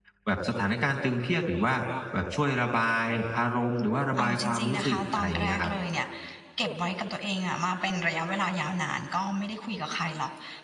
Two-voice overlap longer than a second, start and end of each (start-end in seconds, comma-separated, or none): 4.2-5.7